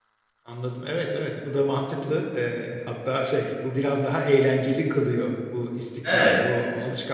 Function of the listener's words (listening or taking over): listening